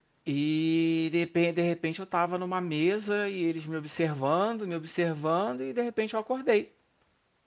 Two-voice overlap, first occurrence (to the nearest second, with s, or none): none